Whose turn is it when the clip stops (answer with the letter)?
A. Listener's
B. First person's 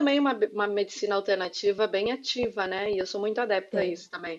B